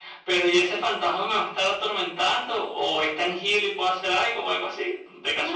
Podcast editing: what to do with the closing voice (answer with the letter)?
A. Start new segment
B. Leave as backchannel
A